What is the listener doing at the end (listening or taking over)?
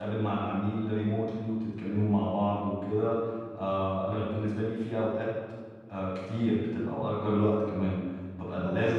listening